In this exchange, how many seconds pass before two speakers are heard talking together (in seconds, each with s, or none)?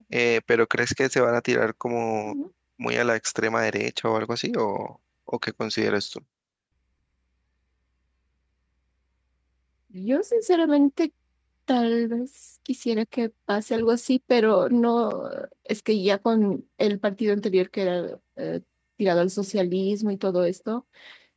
none